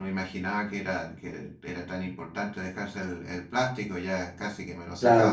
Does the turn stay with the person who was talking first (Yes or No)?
No